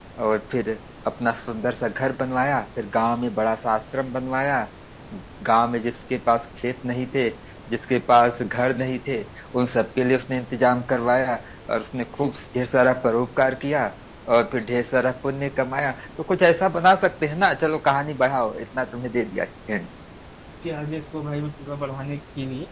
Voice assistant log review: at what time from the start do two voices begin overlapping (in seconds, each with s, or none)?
none